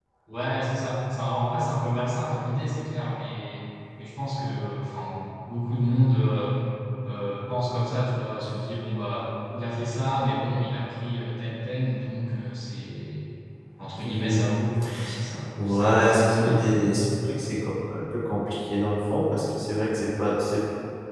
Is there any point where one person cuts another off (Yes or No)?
Yes